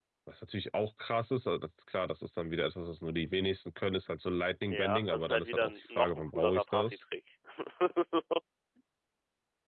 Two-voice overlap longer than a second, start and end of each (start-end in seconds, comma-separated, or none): 4.6-7.0